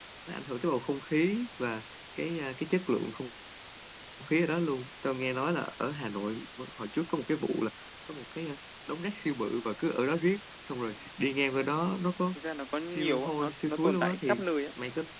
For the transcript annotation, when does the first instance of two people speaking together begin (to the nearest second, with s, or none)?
13 s